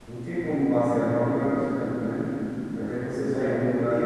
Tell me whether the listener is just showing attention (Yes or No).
No